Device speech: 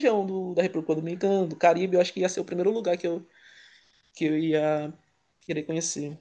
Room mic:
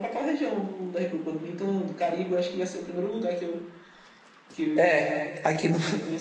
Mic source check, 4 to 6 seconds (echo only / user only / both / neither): both